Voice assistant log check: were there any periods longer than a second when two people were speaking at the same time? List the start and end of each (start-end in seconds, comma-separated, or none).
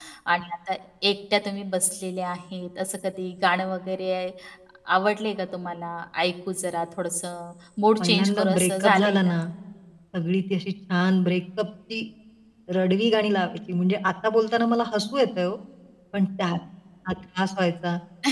8.0-9.3